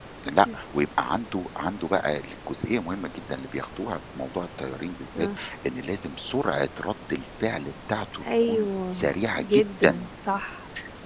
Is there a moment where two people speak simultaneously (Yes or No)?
Yes